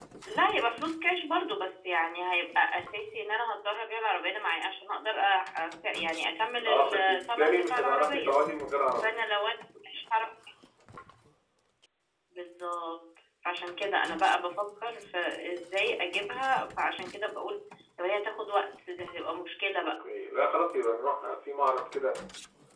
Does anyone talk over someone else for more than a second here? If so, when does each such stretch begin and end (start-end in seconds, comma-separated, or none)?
6.6-8.4